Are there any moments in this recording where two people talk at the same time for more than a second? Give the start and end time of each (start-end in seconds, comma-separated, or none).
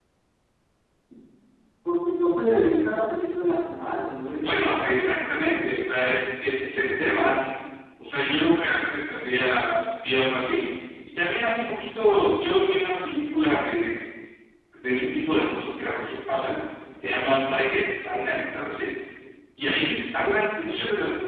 4.4-5.7